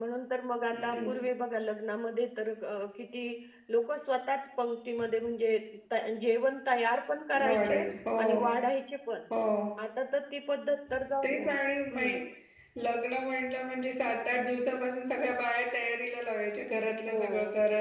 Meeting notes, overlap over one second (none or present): none